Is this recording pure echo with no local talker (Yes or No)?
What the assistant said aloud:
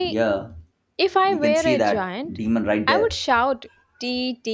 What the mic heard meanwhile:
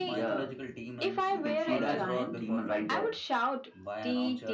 No